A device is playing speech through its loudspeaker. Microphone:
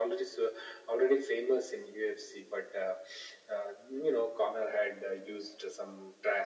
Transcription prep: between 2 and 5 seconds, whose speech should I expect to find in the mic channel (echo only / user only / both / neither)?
echo only